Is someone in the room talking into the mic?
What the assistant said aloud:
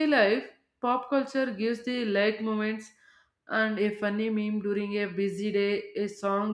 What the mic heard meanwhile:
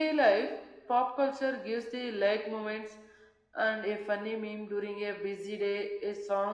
No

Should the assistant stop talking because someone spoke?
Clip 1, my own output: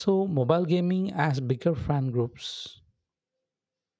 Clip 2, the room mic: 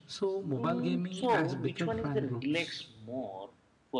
Yes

